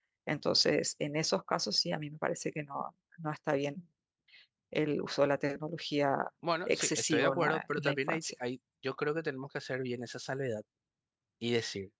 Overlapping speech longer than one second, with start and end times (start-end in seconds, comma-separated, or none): 6.7-8.2